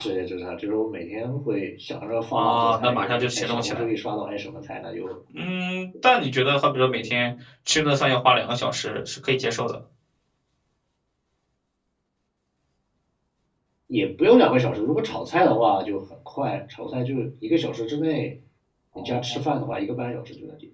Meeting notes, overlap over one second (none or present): present